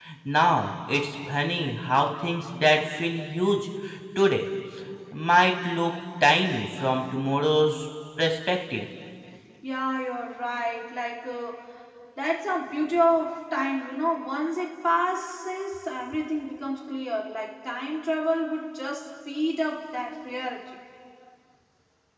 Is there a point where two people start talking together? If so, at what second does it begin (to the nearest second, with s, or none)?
none